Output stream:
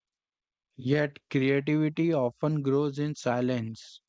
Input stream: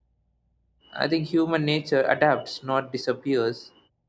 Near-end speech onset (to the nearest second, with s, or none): 1 s